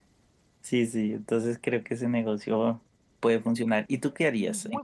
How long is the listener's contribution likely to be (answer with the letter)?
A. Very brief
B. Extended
B